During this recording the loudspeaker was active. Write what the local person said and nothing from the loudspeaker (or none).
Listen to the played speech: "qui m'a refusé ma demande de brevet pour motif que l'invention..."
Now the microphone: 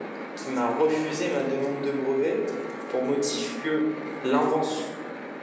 none